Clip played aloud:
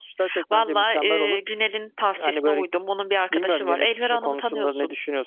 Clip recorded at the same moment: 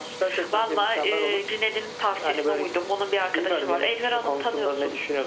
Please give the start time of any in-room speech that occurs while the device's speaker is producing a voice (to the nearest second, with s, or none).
none